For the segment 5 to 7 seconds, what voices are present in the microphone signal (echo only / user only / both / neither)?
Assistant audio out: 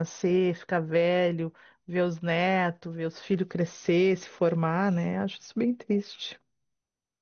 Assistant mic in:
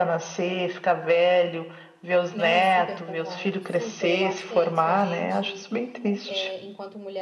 both